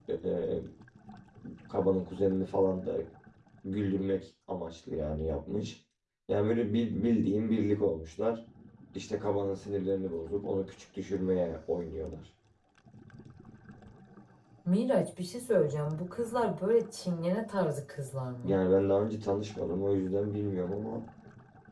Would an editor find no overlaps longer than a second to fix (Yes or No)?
Yes